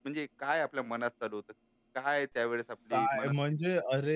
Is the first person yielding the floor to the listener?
Yes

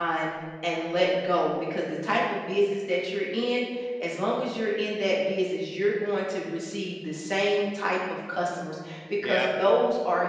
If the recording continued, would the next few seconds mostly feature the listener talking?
No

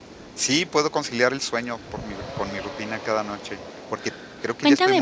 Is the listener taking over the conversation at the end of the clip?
Yes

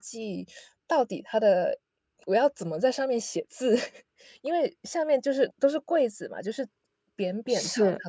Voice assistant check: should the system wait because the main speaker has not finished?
Yes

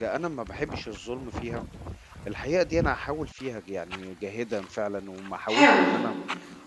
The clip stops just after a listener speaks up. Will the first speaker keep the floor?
Yes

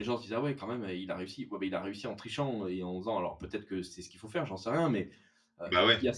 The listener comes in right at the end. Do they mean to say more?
No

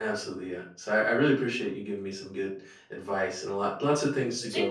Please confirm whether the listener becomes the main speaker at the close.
No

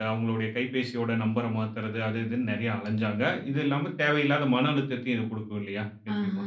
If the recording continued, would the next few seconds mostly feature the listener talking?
Yes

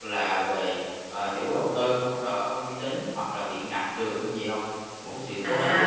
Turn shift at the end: Yes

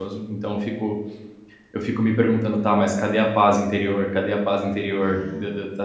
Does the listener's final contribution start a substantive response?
No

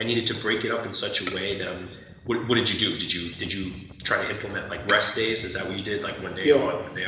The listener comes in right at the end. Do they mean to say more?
Yes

